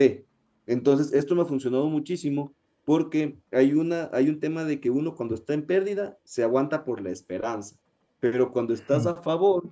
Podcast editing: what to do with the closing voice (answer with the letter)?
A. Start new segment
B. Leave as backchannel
B